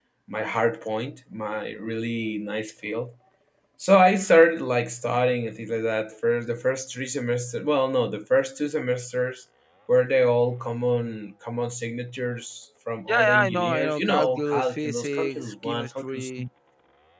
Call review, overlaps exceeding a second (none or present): present